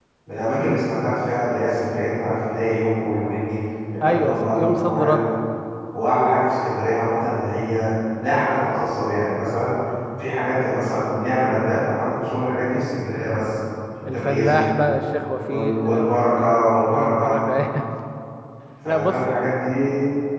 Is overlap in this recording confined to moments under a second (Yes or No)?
No